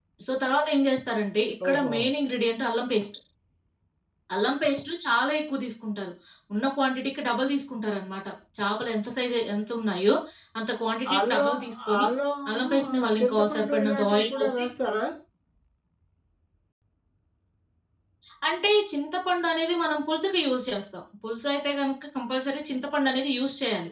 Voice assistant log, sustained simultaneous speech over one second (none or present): present